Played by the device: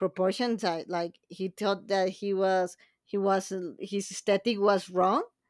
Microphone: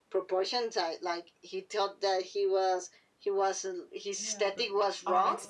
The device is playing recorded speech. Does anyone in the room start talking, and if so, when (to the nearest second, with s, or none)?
4 s